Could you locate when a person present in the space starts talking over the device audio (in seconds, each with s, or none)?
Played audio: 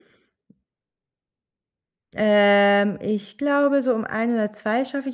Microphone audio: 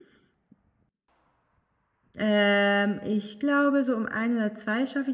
none